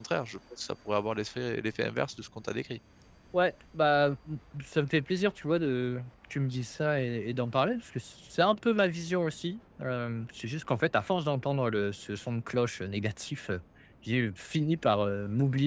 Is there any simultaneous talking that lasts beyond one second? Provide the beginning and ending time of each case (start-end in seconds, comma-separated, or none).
none